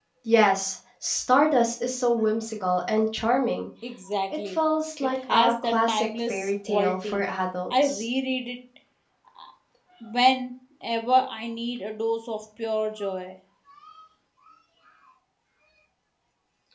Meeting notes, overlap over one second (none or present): present